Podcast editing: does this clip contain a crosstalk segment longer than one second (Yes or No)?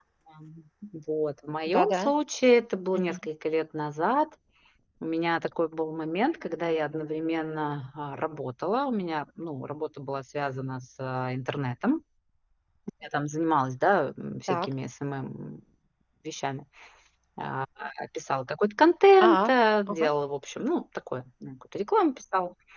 No